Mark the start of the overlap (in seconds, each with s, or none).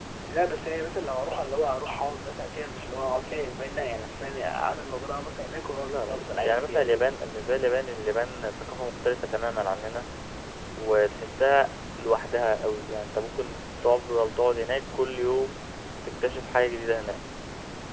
5.8 s